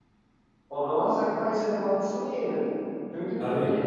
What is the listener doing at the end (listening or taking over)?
listening